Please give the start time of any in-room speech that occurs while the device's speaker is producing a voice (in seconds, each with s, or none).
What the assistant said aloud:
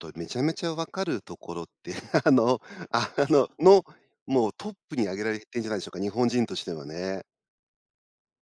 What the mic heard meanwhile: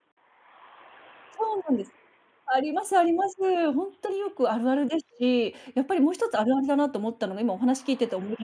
1.3 s